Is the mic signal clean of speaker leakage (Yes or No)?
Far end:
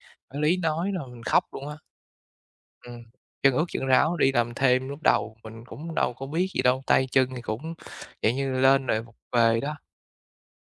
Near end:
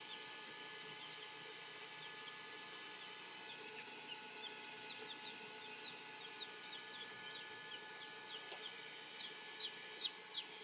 Yes